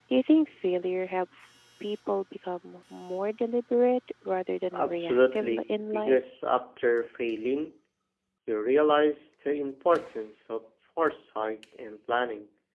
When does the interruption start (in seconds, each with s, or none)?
4.7 s